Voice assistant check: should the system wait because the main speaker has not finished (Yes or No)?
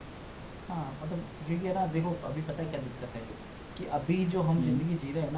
Yes